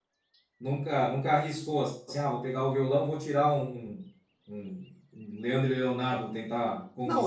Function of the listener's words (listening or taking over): taking over